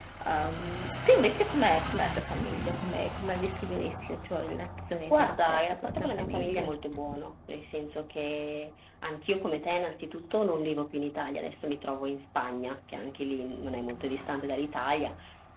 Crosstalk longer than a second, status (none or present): present